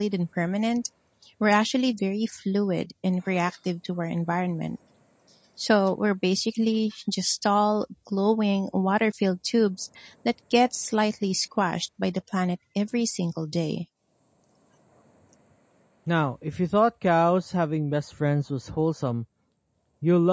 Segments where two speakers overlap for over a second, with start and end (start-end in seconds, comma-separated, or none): none